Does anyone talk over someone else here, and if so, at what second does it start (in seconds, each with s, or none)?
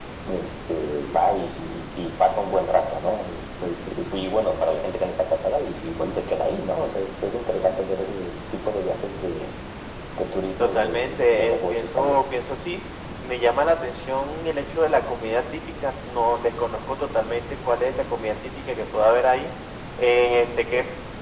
10.6 s